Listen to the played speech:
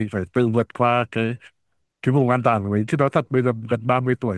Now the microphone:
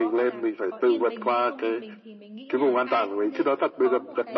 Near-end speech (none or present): present